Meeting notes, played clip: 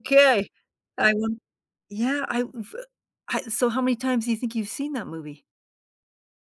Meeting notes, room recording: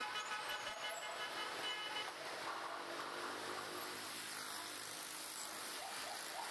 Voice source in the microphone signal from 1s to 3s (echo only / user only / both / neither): neither